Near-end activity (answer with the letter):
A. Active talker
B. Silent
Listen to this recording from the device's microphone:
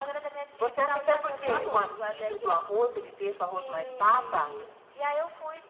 B